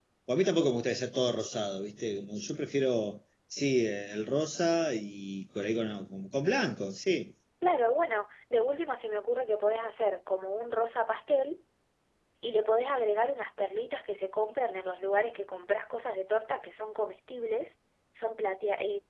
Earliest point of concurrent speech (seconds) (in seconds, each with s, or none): none